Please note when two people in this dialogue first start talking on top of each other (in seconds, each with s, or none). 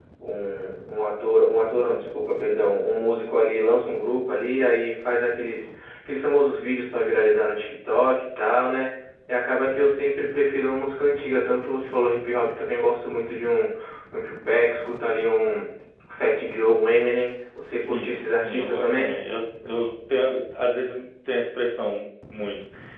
17.8 s